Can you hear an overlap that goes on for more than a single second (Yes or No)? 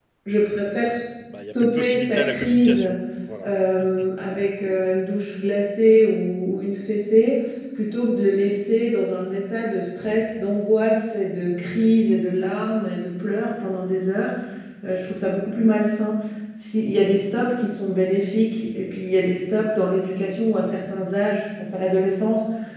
Yes